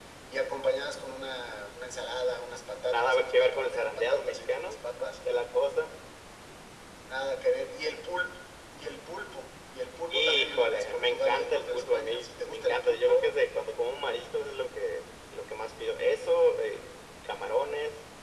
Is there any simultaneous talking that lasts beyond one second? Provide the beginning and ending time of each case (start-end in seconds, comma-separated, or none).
2.9-4.8, 10.1-13.3